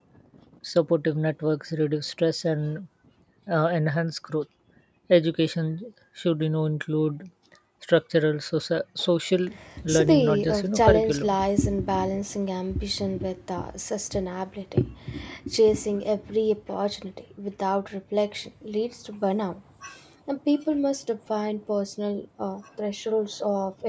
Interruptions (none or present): present